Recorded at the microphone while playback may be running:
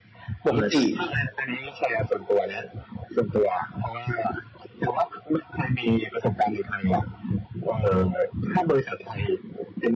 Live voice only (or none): ปกติ